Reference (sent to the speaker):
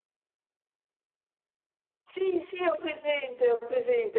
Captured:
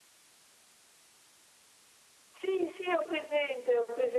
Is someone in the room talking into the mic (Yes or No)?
No